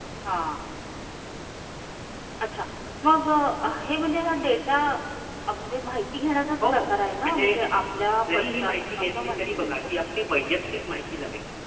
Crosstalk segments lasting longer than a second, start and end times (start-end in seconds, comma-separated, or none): 8.3-9.8